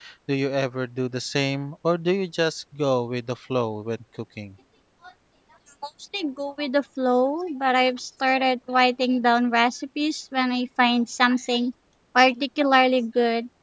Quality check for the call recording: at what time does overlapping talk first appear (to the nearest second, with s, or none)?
none